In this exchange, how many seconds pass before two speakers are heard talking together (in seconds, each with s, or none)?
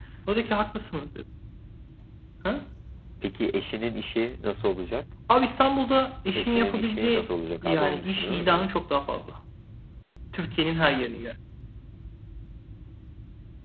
6.4 s